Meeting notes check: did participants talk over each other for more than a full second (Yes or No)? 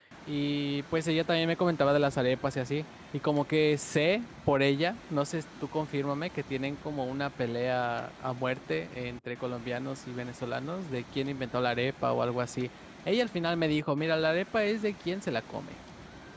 No